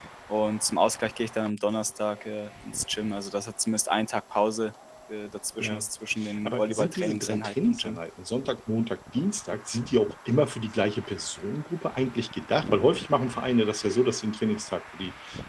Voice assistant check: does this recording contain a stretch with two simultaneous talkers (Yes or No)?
Yes